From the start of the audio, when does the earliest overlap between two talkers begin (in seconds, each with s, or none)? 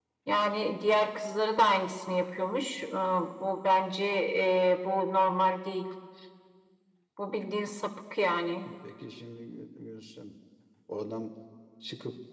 none